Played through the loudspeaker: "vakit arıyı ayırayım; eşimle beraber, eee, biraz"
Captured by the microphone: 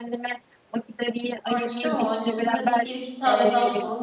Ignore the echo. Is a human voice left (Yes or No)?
Yes